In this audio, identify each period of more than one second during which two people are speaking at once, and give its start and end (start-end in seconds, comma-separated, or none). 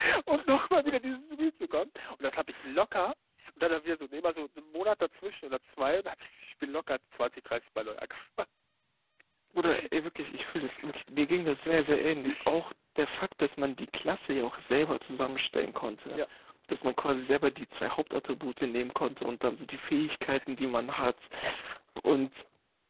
none